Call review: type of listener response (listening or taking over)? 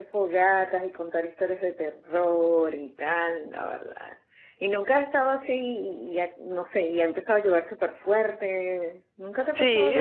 taking over